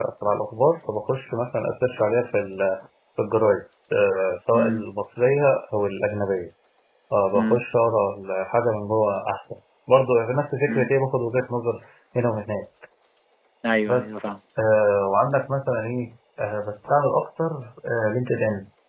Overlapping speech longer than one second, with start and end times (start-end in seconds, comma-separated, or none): none